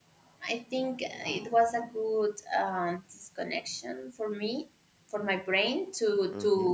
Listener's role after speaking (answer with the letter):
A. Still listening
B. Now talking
B